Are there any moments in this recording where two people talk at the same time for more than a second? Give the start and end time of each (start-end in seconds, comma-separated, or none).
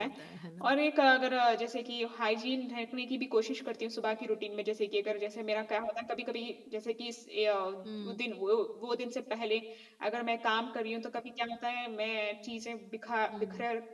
none